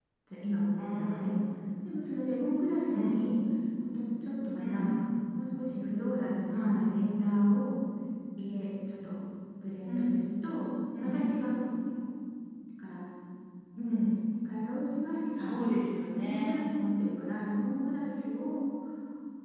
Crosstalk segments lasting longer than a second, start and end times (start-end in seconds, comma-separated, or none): none